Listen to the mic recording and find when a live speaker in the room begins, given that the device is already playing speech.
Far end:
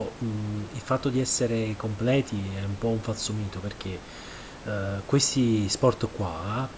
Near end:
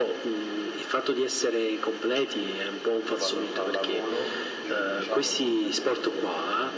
2.9 s

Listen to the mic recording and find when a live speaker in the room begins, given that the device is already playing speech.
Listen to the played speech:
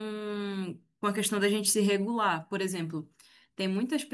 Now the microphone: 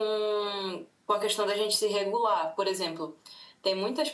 none

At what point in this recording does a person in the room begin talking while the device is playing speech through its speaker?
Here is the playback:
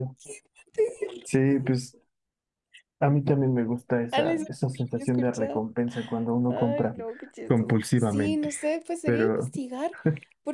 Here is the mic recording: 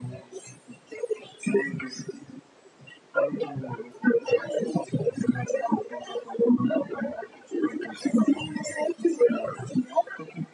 none

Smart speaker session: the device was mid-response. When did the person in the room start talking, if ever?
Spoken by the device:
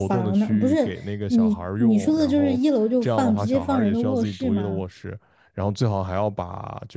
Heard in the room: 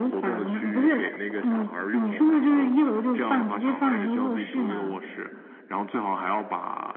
none

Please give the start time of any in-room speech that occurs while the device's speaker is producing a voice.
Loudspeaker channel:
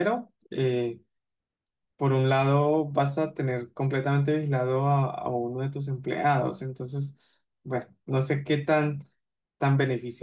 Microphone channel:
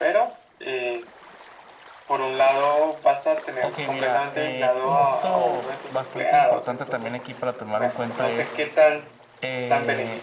3.6 s

